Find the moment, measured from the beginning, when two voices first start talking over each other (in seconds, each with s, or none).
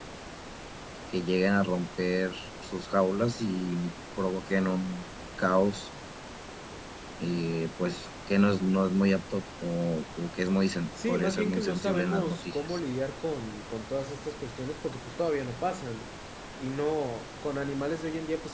11.0 s